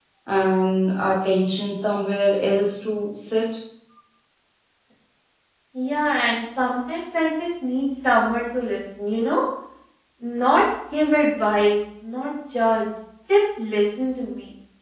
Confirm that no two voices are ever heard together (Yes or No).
Yes